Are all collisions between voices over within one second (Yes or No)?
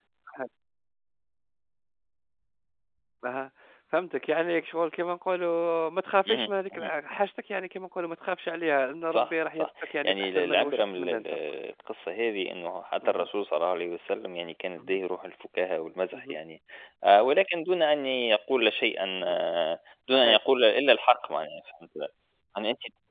No